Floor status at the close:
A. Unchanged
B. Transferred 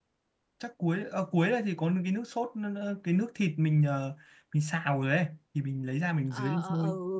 B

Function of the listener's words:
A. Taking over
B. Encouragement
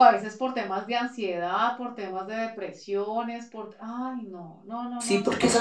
A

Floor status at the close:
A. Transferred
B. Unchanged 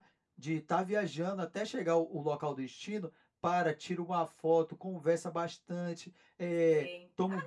A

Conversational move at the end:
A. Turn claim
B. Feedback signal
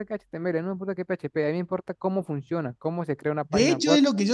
A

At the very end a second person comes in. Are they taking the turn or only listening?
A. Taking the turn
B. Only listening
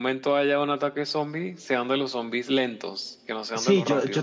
A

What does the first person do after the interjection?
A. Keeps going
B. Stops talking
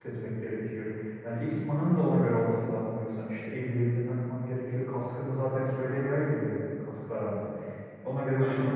A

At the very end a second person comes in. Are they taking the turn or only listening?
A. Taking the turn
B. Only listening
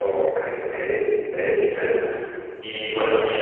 B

